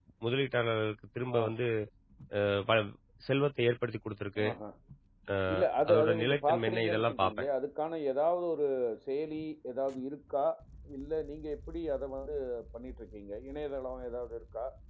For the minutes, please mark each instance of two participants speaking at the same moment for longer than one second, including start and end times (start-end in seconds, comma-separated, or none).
5.9-7.5